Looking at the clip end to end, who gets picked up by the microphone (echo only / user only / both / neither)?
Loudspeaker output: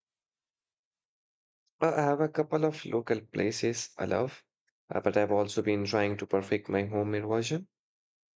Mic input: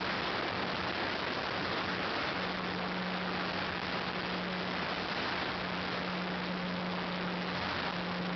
neither